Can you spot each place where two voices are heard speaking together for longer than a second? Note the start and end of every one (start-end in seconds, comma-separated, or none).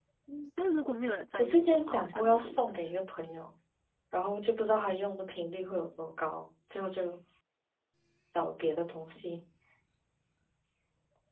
1.4-2.6